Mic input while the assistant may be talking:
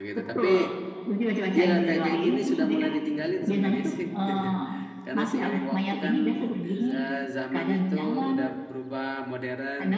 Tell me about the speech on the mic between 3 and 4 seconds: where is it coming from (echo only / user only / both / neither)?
both